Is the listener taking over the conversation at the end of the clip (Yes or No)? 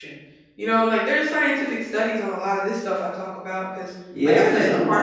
Yes